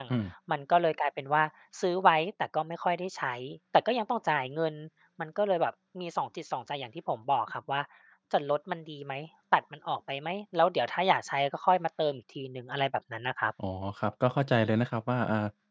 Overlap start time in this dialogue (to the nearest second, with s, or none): none